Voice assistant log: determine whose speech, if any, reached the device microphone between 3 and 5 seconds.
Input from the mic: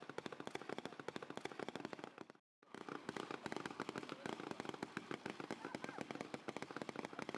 neither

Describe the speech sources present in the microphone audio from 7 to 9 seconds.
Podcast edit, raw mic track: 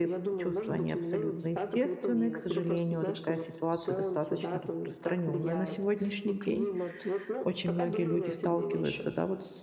both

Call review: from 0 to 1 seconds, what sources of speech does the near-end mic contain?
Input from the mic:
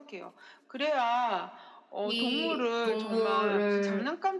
echo only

